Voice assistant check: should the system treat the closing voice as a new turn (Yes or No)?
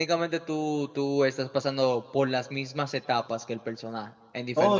Yes